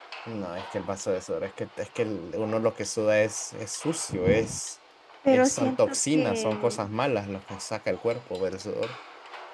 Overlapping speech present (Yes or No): Yes